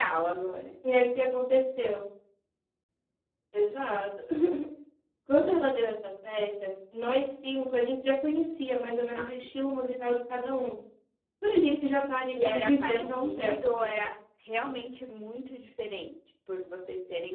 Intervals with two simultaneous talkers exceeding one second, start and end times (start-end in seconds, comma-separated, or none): 12.3-14.0